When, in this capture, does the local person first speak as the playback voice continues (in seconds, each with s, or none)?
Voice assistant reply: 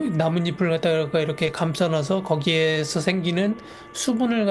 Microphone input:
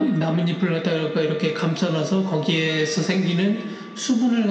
none